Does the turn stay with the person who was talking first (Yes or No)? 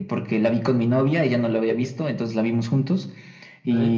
Yes